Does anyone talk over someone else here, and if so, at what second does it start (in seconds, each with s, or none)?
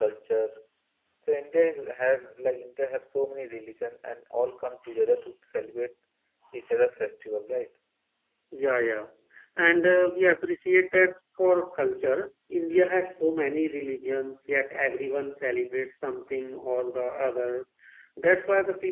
none